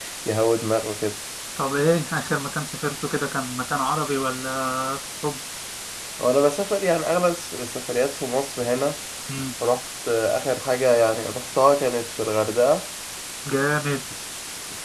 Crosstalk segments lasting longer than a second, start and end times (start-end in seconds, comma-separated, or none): none